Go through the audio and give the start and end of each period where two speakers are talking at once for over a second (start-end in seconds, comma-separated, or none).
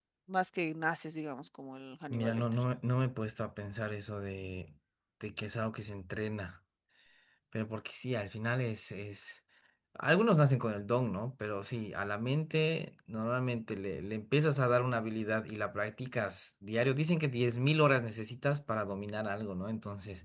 none